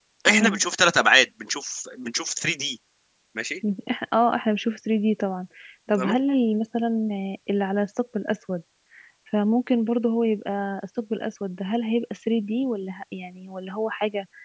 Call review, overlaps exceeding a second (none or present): none